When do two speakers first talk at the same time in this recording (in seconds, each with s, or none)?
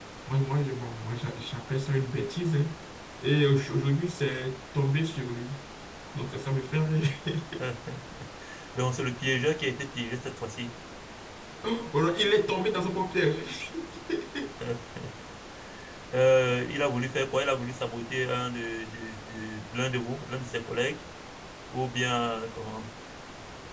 none